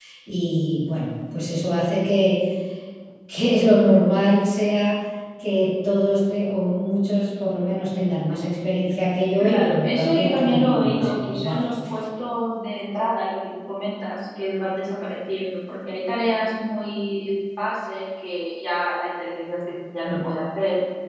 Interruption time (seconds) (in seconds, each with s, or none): 9.4 s